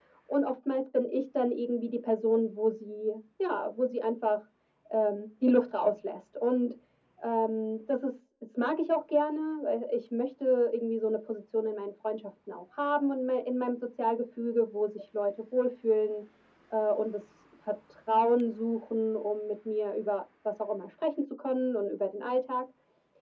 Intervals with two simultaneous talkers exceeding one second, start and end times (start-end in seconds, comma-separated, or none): none